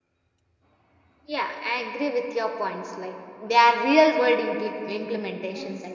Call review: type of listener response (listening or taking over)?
taking over